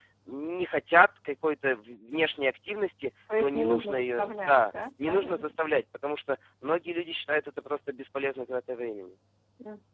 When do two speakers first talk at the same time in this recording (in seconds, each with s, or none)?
3.3 s